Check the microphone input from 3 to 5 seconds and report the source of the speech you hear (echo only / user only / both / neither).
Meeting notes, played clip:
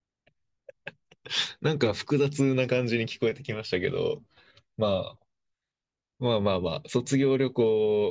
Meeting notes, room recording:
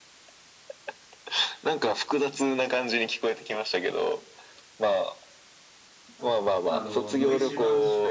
echo only